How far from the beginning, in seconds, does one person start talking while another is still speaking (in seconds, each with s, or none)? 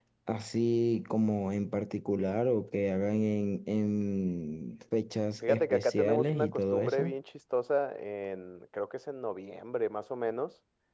5.4 s